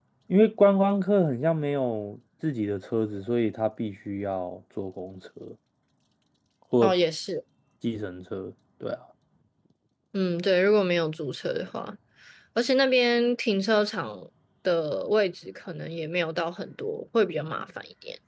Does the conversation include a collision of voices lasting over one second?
No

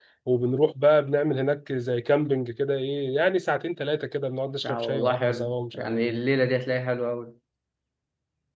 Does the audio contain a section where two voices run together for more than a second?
Yes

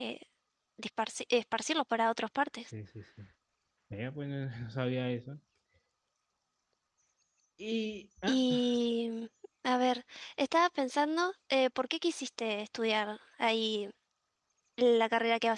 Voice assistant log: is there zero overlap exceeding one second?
Yes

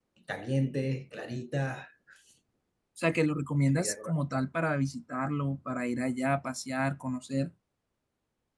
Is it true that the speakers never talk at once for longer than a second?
Yes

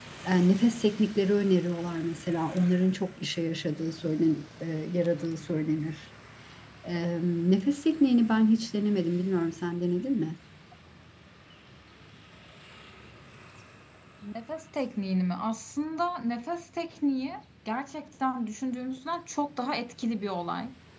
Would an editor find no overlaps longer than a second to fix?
Yes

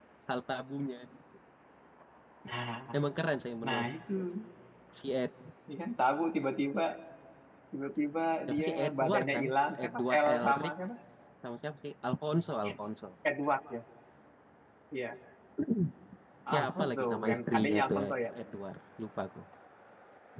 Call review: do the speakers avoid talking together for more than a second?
No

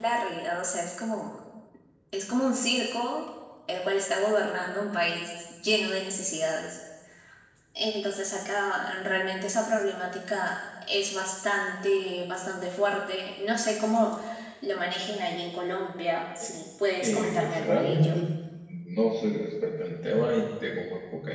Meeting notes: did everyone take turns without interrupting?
No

